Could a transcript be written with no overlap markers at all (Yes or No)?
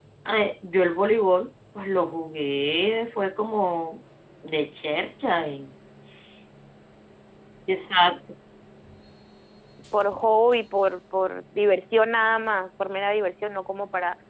Yes